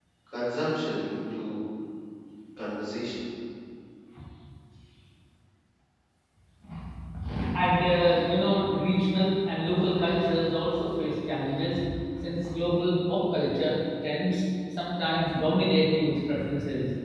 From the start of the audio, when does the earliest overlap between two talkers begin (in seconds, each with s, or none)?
none